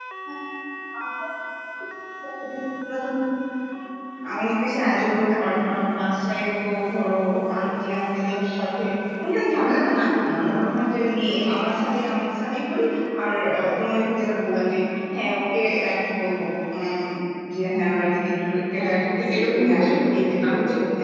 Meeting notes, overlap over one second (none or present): present